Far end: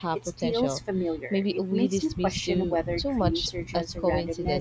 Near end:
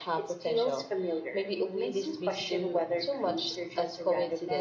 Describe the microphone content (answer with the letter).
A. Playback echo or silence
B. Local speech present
A